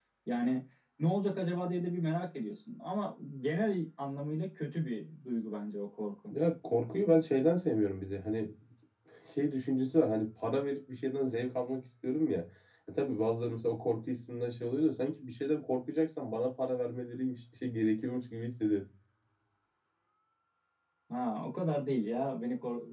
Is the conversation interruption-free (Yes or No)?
Yes